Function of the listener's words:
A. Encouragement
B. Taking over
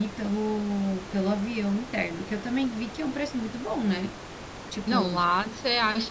B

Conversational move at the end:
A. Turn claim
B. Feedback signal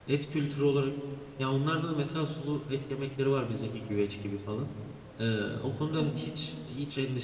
B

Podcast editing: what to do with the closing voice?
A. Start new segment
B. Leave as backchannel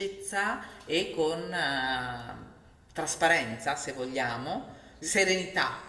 B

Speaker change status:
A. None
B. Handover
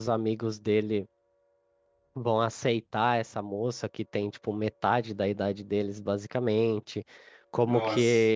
A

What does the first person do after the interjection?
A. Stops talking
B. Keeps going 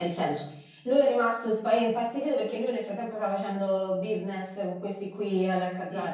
A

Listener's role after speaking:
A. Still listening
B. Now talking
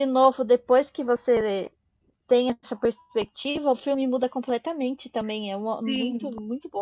B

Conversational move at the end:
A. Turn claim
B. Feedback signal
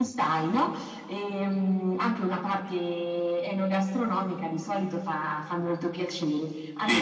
B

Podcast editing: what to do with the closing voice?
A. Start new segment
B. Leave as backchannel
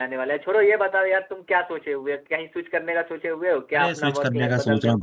A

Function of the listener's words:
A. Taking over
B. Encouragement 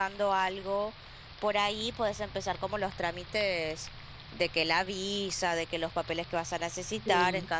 B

